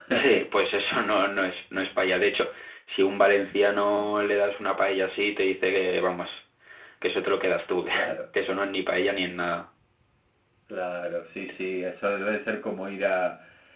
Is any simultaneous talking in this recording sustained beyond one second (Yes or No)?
No